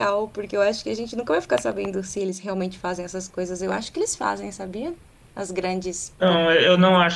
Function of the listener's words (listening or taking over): taking over